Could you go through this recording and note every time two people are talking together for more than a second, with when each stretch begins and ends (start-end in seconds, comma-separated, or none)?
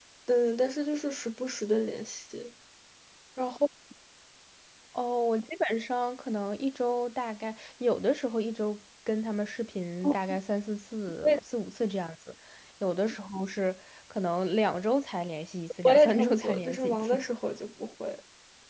15.8-17.1